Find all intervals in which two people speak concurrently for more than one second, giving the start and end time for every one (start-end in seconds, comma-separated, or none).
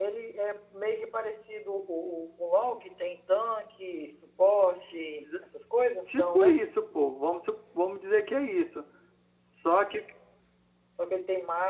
none